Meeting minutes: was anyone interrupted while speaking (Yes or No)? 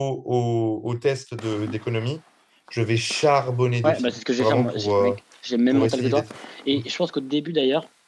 Yes